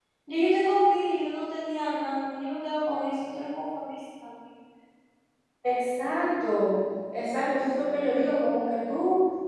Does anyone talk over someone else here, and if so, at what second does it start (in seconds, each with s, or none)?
none